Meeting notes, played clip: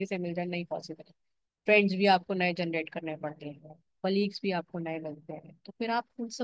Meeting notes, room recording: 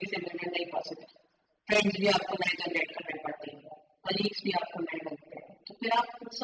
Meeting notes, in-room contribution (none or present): none